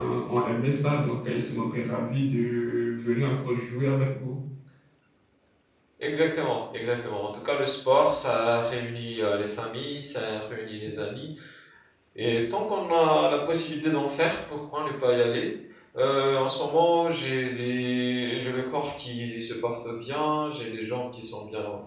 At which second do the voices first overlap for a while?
none

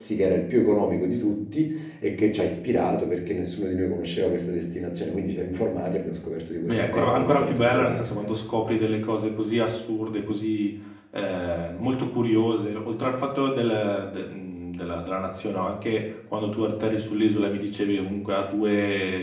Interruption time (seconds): 7 s

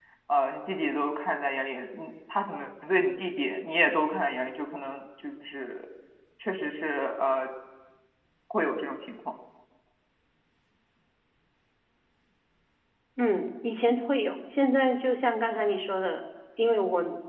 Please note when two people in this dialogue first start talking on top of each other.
none

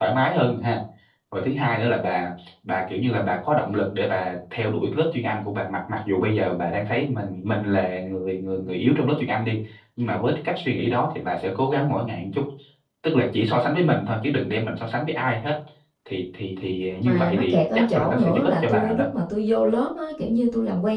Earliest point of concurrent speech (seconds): 17 s

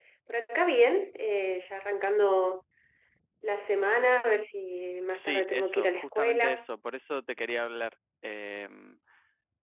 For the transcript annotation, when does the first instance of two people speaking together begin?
5 s

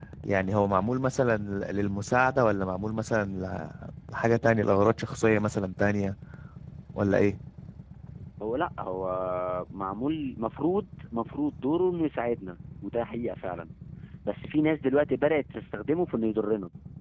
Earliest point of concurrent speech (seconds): none

